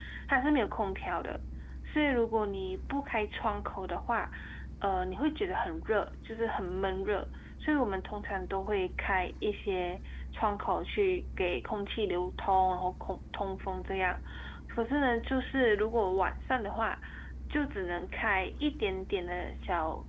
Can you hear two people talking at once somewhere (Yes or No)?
No